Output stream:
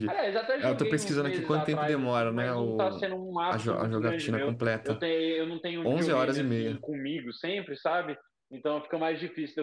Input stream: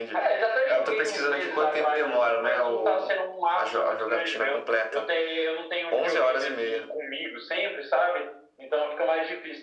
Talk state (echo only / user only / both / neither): echo only